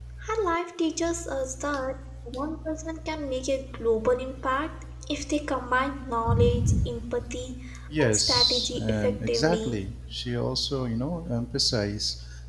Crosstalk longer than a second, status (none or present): present